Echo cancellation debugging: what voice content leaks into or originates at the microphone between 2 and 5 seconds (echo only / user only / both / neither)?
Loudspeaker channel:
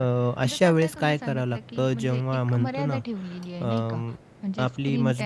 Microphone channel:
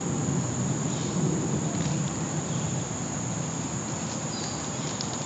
neither